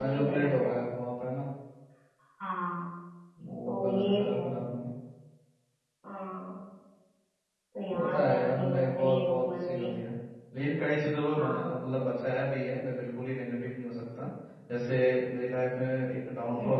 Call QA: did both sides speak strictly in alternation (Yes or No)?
No